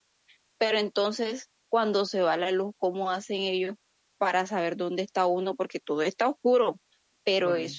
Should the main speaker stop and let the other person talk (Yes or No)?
No